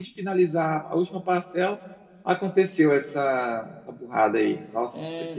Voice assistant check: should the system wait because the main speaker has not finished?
No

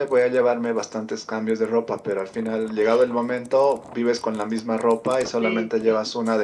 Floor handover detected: No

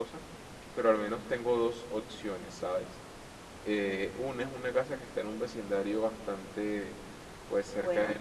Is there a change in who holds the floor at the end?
No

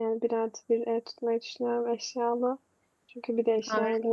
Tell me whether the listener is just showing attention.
Yes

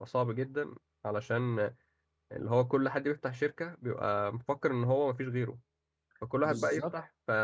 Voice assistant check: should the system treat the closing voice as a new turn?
No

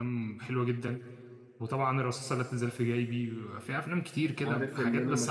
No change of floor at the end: No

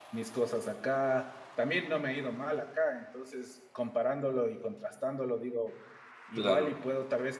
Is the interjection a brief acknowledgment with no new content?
Yes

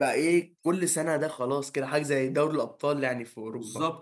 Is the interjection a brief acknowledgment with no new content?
No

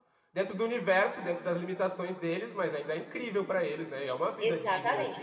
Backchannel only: No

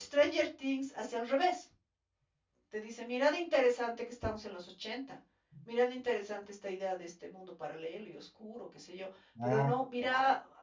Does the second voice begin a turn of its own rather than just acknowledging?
No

